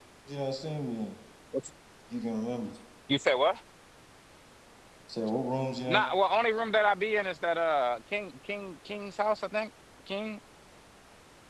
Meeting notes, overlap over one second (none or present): none